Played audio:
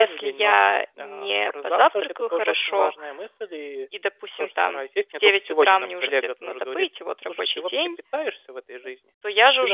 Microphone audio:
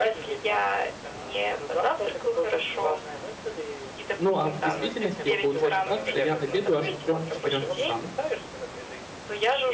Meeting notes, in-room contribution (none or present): present